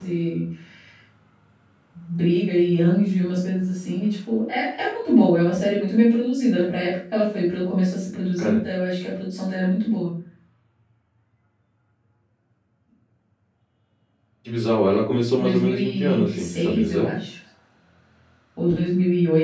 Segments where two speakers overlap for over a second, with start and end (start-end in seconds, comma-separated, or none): 15.4-17.1